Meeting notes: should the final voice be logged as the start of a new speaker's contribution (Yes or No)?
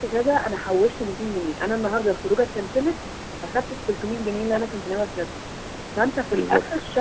No